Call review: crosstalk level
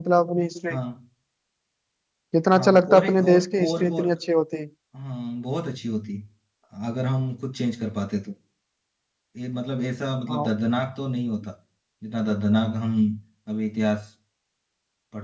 present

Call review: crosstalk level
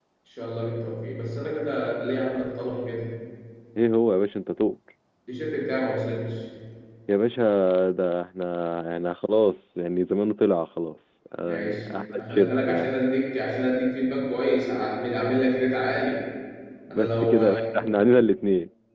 present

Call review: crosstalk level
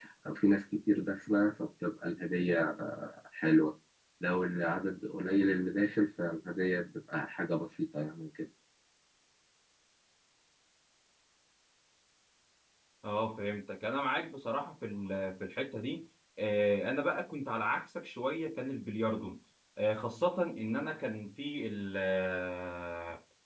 none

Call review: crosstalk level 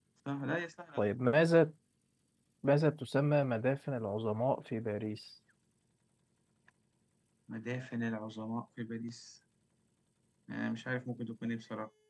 none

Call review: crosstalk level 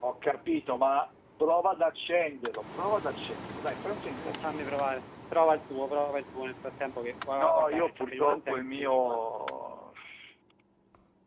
present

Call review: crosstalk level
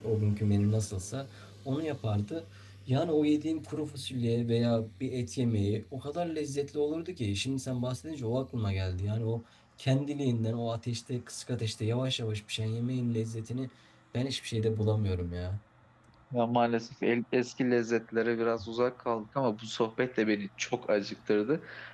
none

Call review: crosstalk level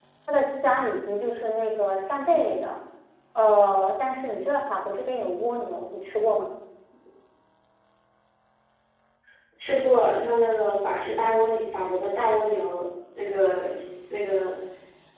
none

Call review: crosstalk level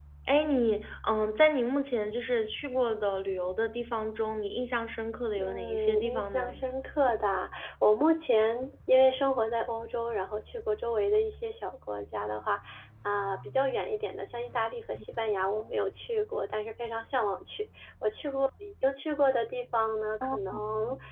present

